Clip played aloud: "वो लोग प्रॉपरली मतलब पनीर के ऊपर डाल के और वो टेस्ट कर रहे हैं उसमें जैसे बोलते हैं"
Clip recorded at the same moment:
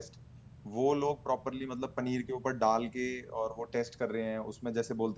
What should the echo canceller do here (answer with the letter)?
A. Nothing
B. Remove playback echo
B